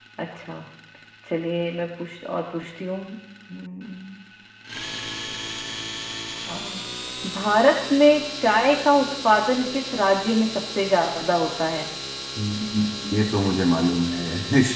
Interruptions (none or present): none